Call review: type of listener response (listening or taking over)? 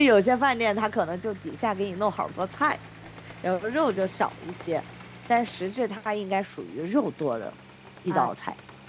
taking over